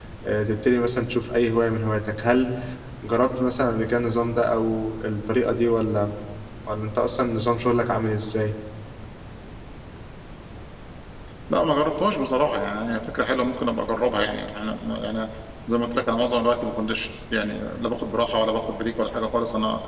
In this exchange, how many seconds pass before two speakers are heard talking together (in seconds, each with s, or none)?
none